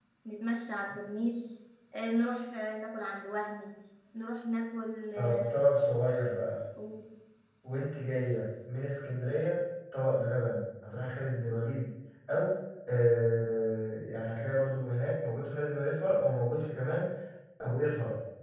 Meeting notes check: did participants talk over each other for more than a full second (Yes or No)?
No